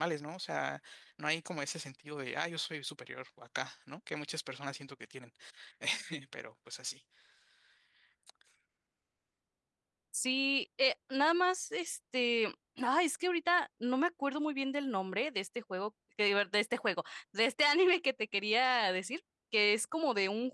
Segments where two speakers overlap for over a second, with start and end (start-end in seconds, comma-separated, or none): none